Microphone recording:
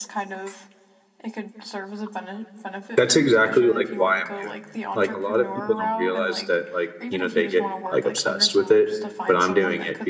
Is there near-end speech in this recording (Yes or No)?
Yes